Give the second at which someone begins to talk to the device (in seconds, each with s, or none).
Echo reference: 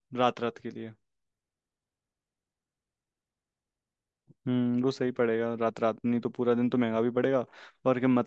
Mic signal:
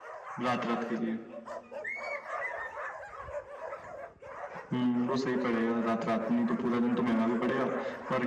none